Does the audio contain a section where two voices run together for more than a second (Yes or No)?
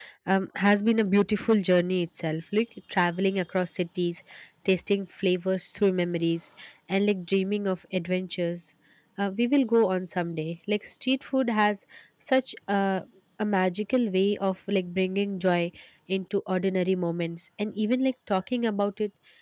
No